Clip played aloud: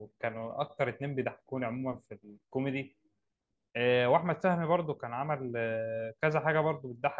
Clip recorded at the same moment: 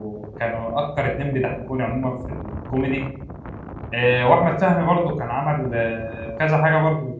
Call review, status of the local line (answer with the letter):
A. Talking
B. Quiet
B